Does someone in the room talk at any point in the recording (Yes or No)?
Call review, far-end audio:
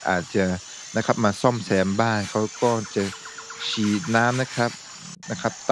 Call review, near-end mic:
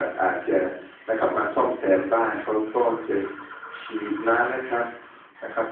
No